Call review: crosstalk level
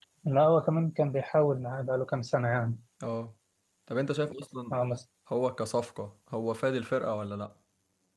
none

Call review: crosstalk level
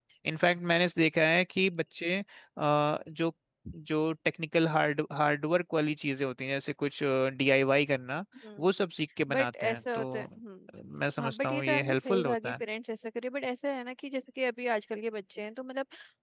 present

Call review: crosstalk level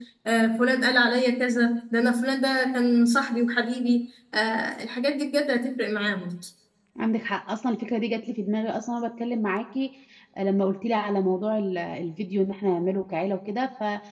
none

